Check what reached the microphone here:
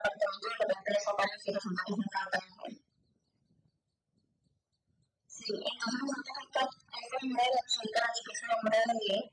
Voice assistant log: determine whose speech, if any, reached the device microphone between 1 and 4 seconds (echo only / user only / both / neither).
echo only